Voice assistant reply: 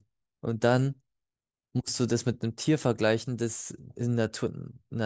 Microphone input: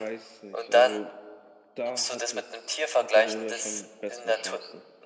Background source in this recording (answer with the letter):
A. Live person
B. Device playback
A